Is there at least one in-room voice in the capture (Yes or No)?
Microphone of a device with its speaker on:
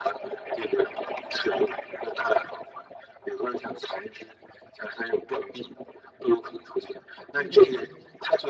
Yes